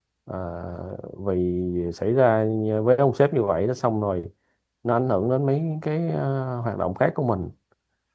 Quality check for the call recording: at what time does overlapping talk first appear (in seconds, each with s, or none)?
none